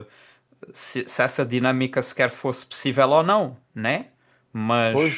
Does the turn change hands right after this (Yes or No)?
Yes